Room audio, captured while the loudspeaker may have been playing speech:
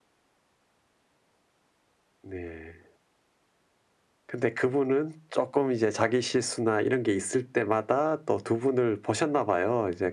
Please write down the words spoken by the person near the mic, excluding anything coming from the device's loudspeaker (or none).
none